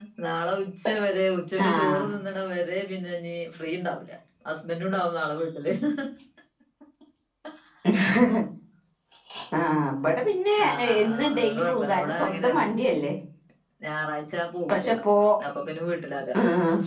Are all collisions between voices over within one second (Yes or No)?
No